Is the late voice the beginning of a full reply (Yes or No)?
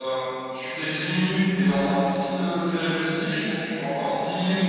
No